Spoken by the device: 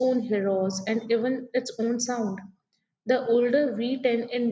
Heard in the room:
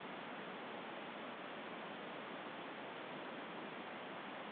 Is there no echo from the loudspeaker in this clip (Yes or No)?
Yes